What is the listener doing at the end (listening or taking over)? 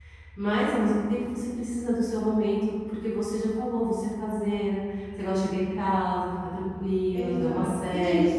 taking over